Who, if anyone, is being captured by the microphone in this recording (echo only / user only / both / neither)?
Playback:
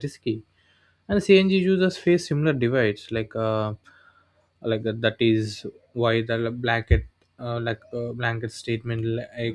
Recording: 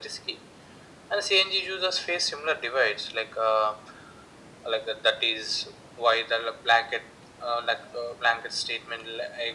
echo only